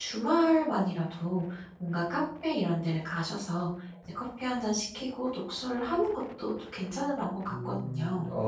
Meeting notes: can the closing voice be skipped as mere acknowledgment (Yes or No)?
No